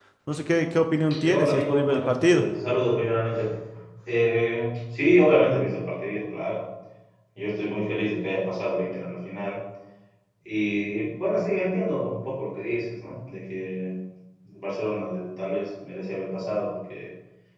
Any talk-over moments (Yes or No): Yes